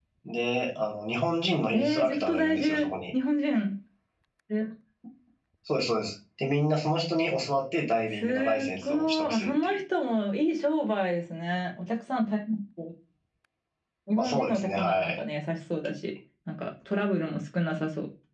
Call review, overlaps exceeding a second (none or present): present